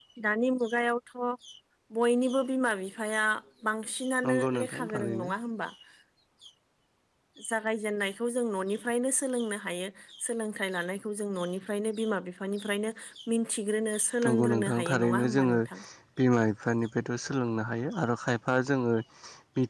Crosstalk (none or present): present